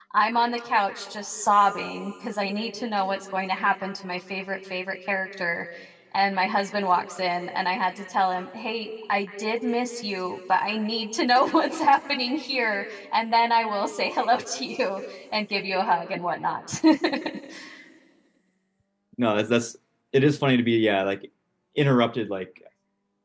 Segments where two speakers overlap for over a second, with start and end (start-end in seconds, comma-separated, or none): none